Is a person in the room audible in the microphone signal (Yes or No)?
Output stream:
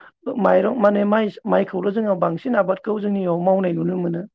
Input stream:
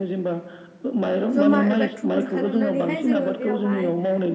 Yes